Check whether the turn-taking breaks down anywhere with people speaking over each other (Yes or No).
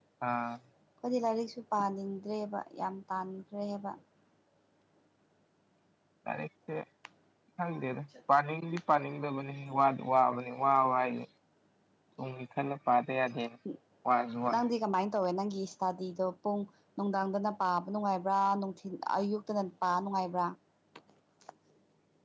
No